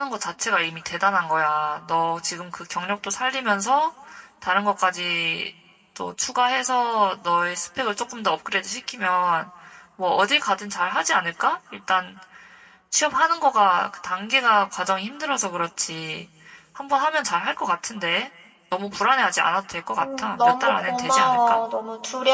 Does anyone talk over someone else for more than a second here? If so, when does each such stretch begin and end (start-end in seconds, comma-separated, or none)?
20.0-21.6